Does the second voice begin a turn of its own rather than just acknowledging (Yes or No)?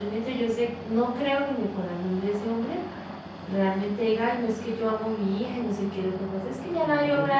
No